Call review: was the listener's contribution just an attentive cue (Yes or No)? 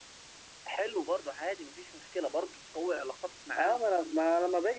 No